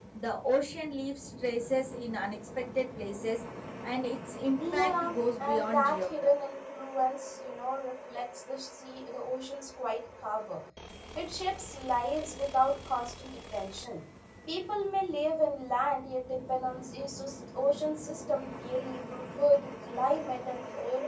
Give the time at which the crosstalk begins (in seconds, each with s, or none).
4.6 s